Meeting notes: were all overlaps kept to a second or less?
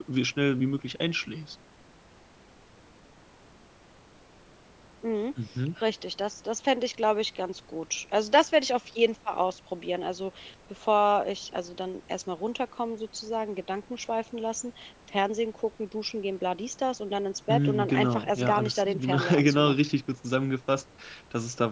No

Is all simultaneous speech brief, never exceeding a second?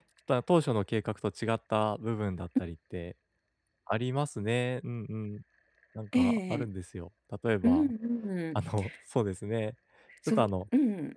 Yes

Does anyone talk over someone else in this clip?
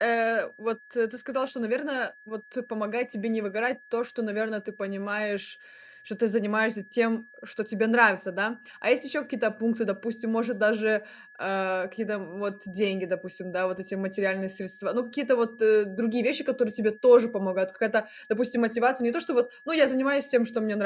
No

